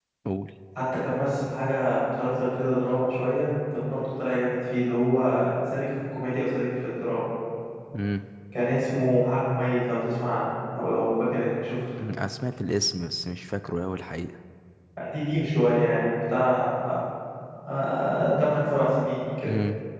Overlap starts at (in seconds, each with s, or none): none